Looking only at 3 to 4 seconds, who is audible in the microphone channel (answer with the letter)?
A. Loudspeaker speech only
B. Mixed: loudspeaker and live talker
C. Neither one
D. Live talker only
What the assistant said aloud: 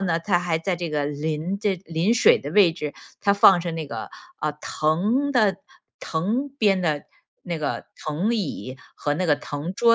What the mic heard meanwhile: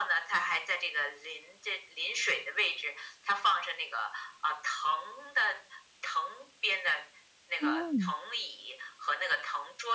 A